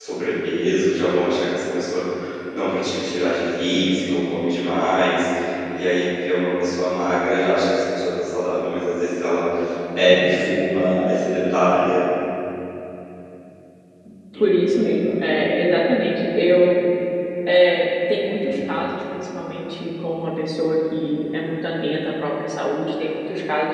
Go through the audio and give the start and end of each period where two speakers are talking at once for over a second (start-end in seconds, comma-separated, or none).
none